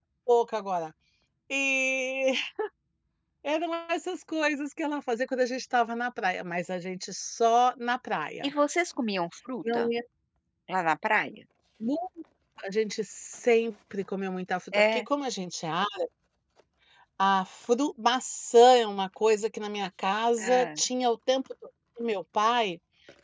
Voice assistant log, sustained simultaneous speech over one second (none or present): none